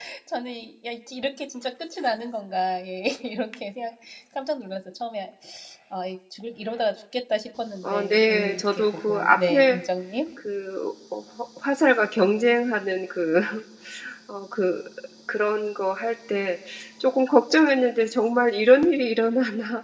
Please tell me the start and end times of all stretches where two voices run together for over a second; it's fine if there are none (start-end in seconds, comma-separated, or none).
7.8-9.8